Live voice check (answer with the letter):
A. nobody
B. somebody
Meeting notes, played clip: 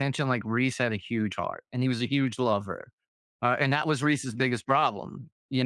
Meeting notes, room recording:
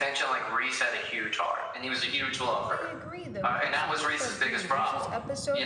B